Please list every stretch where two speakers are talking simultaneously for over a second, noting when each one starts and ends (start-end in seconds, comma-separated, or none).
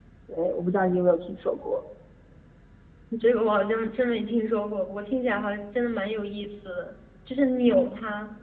none